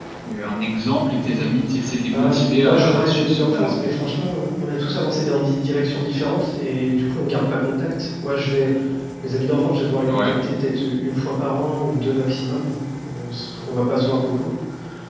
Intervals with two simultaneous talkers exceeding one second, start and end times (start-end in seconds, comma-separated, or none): 2.1-3.8